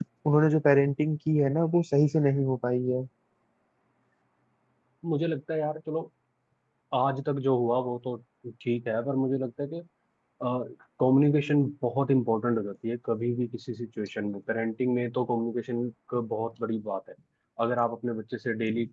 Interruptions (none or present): none